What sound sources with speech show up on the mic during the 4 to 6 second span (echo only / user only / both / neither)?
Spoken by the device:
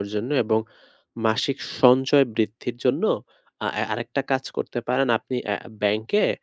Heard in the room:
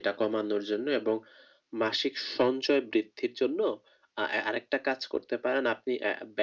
echo only